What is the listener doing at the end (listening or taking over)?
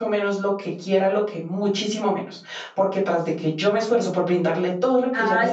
taking over